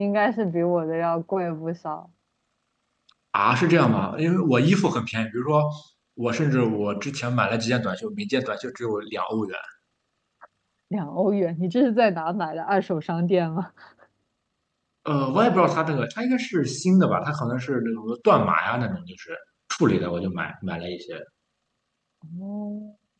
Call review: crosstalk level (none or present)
none